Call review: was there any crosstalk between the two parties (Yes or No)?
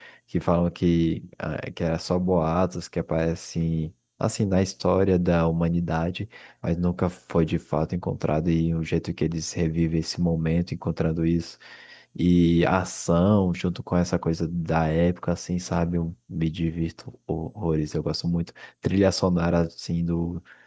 No